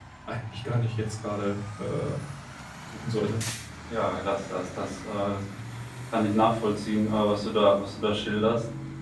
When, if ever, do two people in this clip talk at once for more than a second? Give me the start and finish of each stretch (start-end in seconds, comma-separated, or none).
none